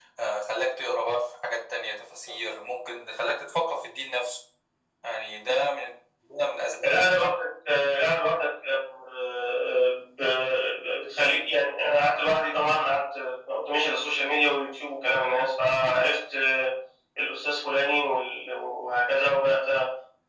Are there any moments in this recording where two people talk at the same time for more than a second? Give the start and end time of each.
none

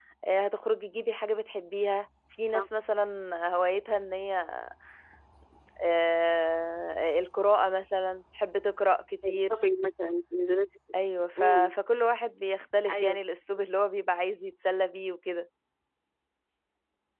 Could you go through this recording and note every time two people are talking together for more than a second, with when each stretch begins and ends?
none

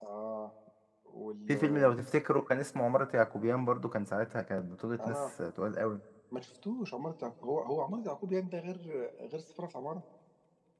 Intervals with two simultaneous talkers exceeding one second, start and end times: none

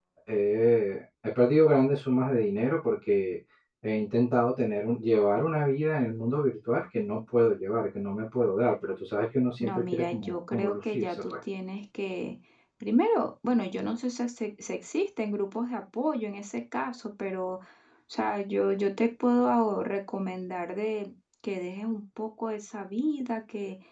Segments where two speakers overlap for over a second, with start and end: 9.6-11.3

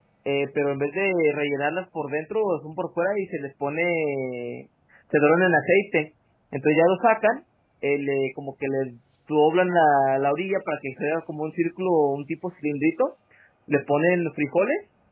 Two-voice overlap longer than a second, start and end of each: none

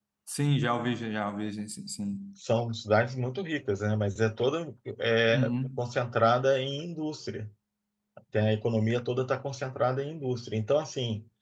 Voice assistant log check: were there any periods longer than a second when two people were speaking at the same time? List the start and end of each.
none

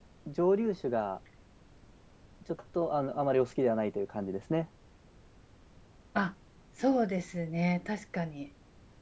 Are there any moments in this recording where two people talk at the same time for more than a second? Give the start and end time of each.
none

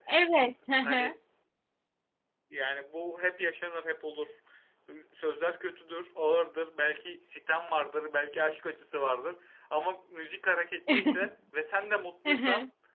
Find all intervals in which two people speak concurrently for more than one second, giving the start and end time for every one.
none

